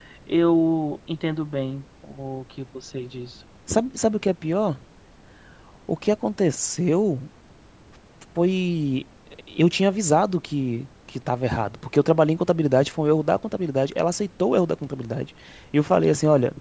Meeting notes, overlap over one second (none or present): none